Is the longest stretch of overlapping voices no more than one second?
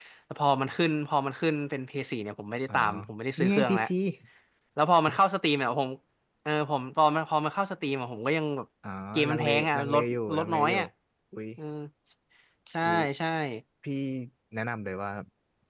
No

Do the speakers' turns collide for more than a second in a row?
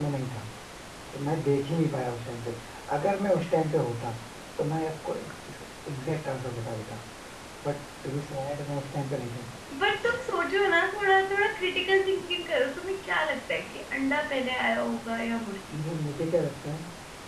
No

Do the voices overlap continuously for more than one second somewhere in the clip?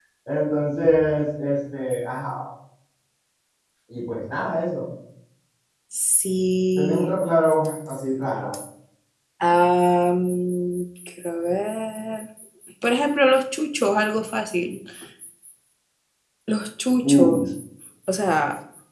No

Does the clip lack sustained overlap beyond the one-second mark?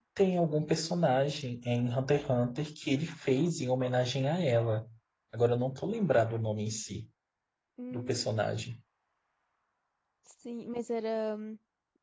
Yes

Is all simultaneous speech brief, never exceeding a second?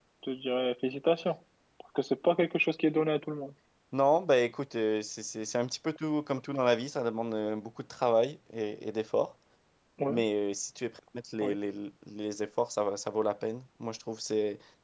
Yes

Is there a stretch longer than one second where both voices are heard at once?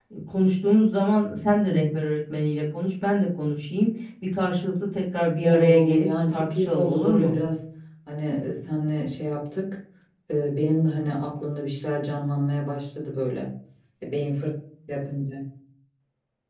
Yes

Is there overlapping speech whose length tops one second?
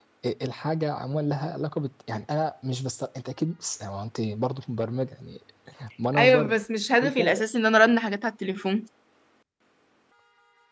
No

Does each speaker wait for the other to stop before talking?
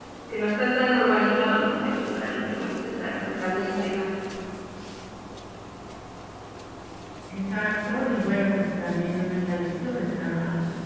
Yes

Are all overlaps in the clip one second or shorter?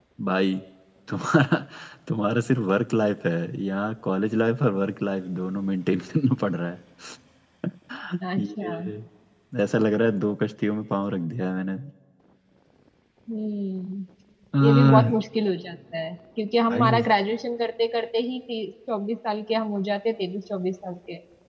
Yes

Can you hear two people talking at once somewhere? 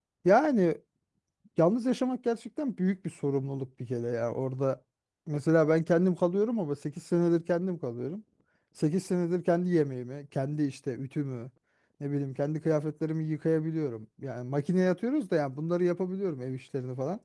No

